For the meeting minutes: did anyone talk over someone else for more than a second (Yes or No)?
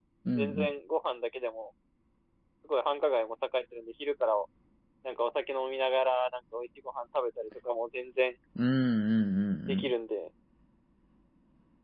No